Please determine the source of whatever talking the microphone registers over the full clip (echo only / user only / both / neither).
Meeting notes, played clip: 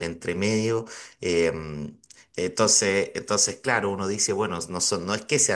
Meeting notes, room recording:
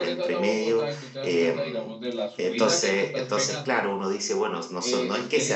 both